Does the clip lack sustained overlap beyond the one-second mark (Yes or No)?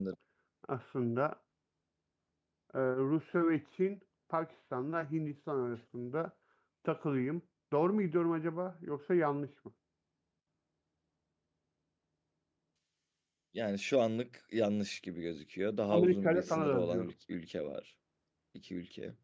No